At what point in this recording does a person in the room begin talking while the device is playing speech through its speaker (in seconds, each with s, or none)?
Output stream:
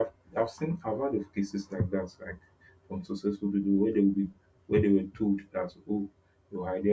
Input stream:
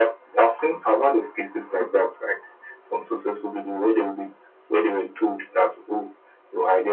none